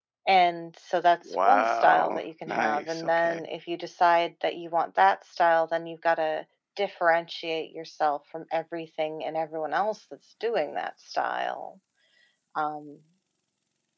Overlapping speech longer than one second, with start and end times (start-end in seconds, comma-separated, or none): 1.3-3.4